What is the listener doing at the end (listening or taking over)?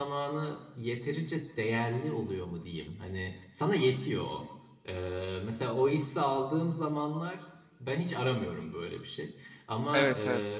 listening